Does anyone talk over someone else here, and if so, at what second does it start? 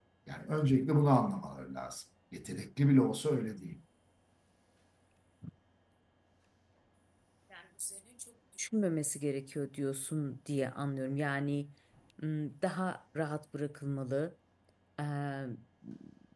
none

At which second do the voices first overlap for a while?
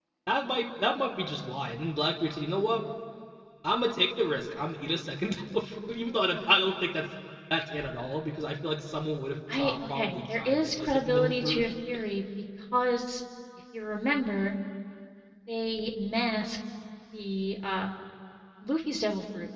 9.5 s

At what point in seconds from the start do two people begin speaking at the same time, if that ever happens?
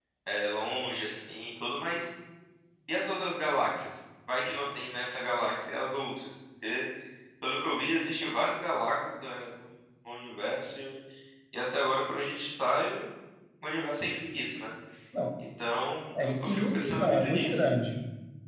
16.2 s

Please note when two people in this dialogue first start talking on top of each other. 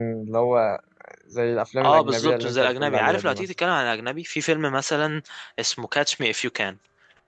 1.8 s

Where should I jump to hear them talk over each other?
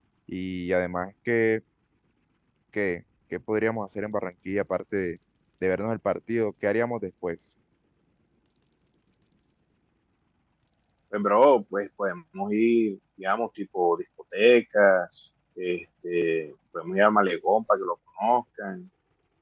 none

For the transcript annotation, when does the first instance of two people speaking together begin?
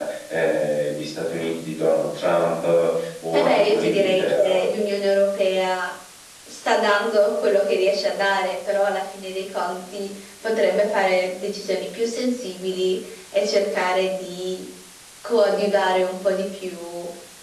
3.3 s

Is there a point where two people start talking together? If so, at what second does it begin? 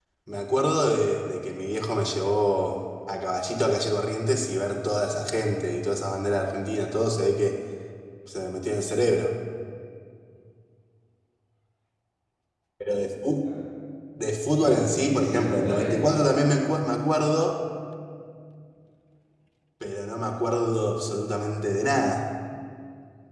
14.6 s

